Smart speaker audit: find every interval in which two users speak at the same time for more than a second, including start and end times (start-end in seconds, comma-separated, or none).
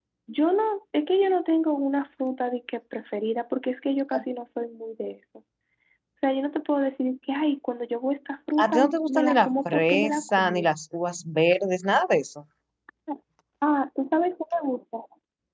8.6-10.7